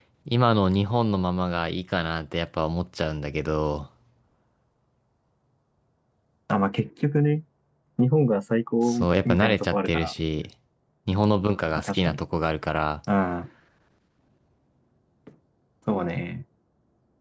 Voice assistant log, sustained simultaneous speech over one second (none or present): present